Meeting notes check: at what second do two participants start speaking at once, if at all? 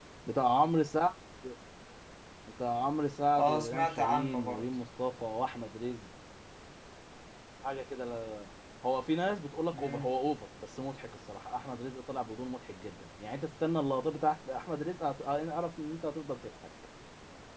3.4 s

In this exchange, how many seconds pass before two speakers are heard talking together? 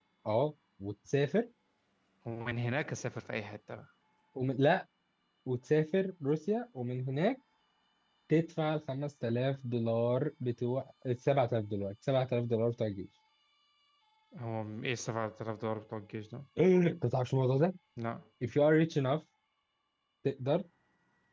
none

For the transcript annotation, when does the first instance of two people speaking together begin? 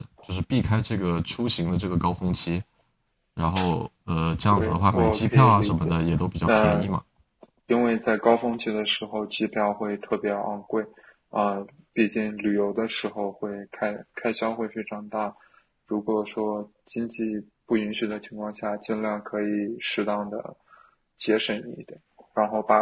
4.5 s

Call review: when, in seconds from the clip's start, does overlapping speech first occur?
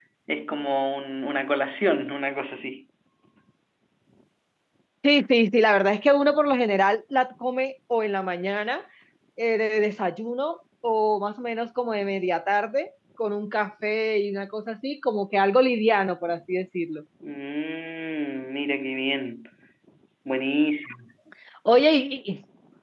none

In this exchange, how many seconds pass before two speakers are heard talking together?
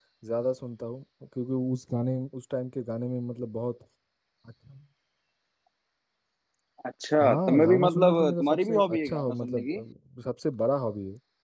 7.2 s

